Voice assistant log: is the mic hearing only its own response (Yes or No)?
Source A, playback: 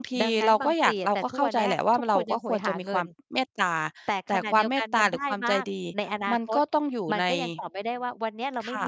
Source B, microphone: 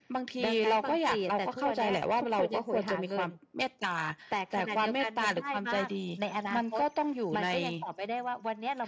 Yes